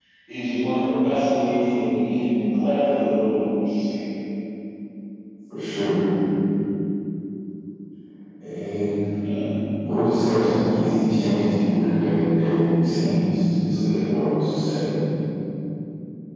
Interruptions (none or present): none